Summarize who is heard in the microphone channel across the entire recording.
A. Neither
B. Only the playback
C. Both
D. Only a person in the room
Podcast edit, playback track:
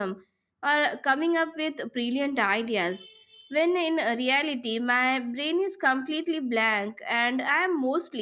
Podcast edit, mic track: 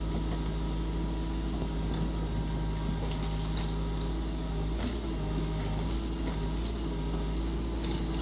A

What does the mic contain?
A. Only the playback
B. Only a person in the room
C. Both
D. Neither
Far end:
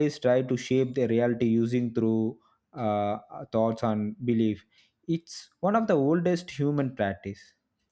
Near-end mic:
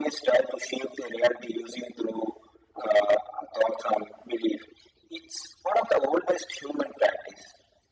A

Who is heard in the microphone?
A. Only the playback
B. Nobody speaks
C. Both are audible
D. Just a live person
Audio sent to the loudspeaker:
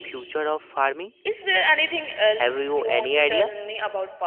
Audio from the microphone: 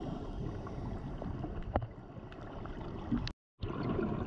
B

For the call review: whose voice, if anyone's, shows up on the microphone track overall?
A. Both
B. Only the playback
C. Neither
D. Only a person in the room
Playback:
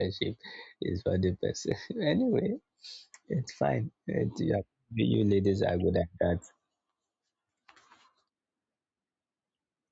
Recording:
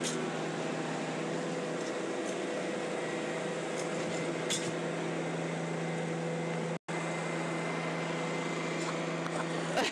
C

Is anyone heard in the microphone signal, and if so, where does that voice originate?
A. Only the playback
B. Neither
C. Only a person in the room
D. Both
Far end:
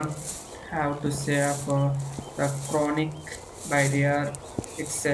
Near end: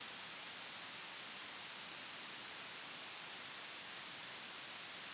B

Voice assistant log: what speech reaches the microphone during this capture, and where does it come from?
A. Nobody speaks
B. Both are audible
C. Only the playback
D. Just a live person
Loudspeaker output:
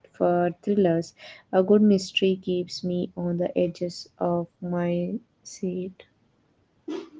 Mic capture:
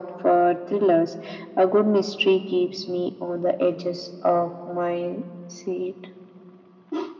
C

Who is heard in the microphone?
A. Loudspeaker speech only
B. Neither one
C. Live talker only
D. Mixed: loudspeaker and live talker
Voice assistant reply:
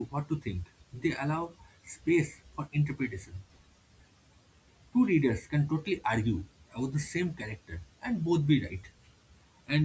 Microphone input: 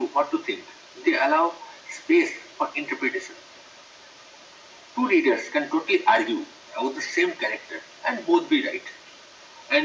A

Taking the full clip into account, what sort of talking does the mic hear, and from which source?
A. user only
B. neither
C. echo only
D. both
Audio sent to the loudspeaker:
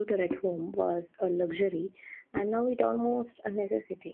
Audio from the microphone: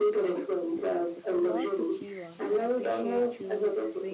D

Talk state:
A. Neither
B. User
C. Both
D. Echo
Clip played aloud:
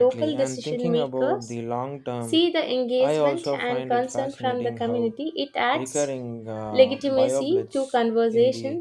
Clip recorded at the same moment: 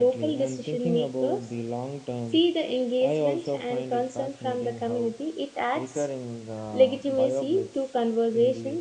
D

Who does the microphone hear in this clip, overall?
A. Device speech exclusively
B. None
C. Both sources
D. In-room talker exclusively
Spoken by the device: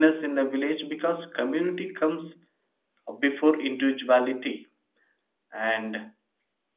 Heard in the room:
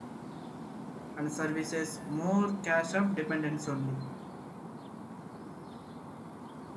D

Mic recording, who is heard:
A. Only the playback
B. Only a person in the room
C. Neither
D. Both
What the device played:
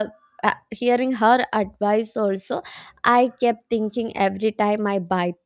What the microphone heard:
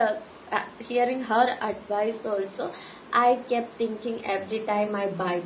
A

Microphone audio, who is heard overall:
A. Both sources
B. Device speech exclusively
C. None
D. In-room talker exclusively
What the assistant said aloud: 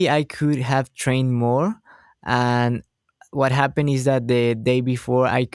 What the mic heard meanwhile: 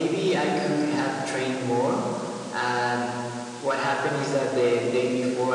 B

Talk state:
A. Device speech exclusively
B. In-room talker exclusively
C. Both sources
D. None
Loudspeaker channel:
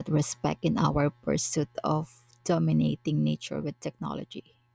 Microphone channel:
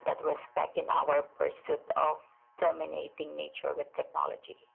A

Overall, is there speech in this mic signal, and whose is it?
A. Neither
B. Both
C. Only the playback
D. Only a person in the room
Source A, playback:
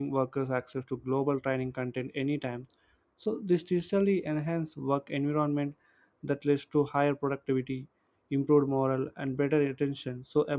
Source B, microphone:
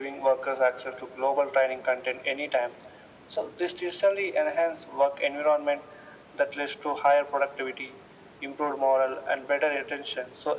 C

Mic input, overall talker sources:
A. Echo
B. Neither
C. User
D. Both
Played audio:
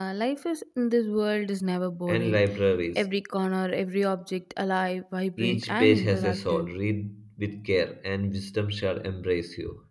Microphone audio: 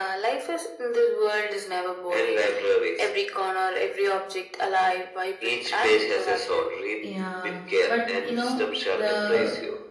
D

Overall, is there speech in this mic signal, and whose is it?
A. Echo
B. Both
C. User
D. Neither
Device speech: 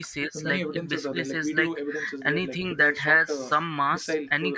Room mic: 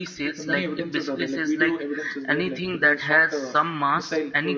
A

